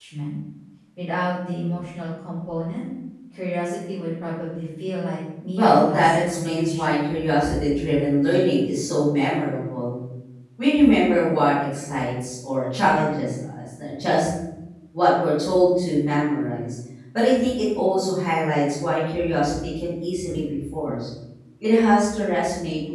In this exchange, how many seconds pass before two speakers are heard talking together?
5.6 s

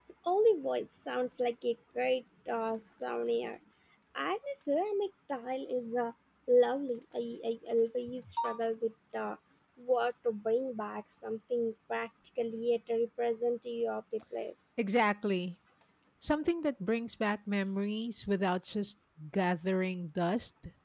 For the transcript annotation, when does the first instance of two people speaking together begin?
none

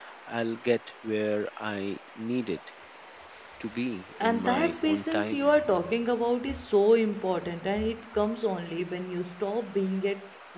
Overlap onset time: 4.2 s

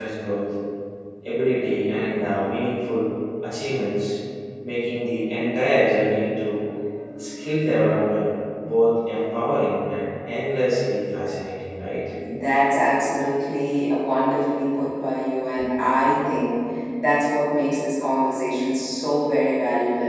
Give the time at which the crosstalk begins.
none

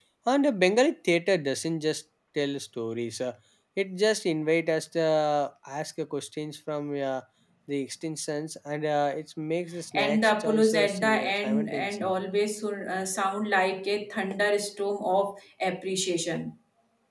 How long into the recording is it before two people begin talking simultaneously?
10.0 s

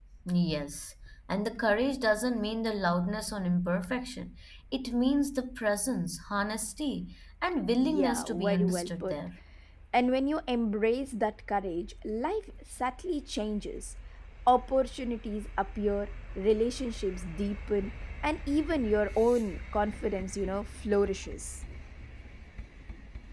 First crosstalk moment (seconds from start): 7.8 s

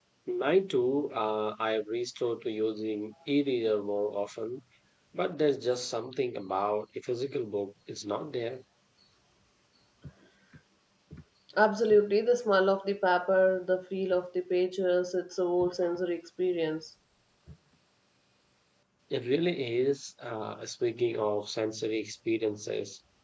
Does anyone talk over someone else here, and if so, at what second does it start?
none

